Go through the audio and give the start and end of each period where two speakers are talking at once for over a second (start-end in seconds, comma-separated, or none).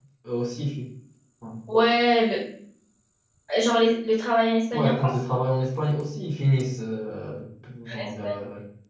none